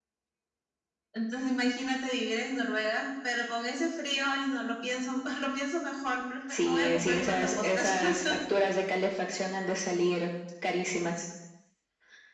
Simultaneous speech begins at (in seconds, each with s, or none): 6.5 s